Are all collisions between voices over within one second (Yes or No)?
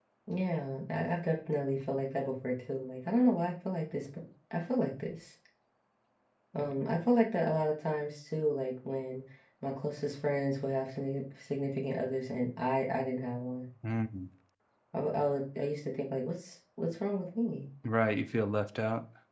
Yes